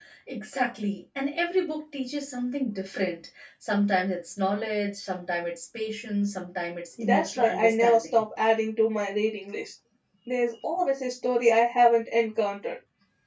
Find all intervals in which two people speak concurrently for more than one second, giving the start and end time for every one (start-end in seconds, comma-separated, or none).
7.0-8.2